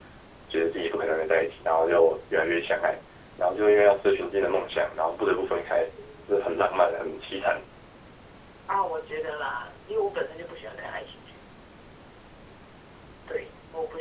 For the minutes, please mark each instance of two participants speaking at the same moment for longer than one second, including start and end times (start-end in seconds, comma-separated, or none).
none